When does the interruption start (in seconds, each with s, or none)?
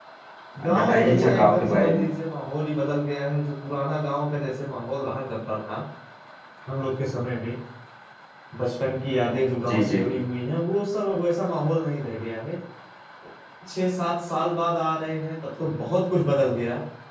0.6 s